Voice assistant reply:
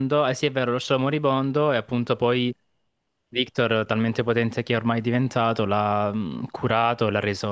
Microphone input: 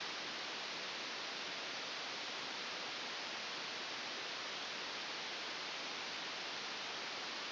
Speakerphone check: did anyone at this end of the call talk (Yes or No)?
No